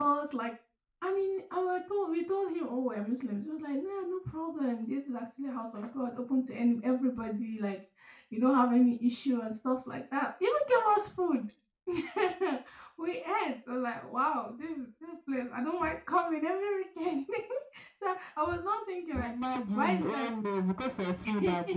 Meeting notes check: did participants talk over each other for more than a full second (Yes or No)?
No